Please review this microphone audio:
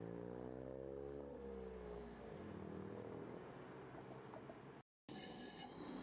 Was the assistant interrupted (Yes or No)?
No